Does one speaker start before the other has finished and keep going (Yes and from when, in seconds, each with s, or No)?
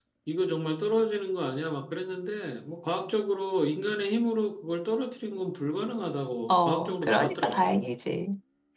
Yes, from 6.5 s